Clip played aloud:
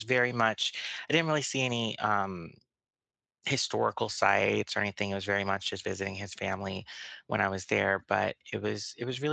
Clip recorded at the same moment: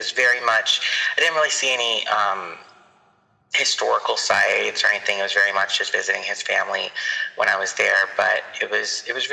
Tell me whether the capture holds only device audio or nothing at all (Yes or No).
Yes